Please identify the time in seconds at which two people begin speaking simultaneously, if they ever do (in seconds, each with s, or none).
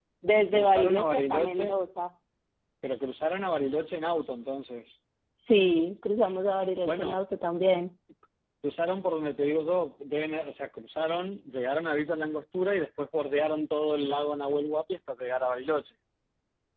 0.5 s